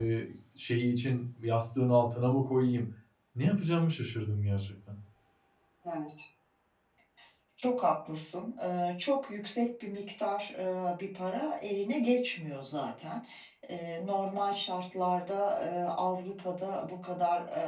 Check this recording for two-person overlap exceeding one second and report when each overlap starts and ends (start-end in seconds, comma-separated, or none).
none